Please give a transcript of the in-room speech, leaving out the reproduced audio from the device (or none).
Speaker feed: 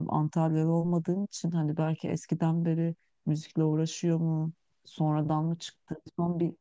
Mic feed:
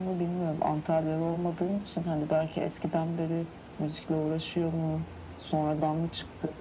none